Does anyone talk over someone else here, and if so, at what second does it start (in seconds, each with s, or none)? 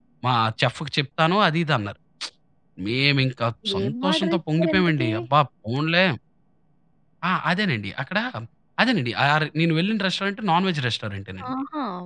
3.6 s